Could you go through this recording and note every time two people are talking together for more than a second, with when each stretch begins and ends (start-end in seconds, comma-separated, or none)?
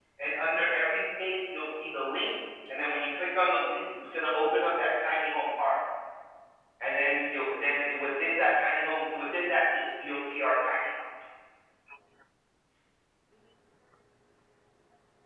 none